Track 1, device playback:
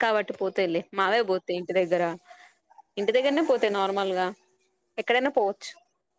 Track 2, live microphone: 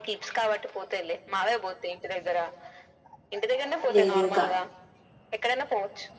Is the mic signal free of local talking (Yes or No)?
No